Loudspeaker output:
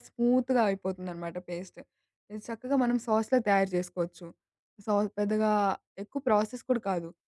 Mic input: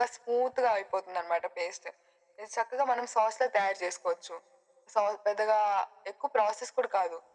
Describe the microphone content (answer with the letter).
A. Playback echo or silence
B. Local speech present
A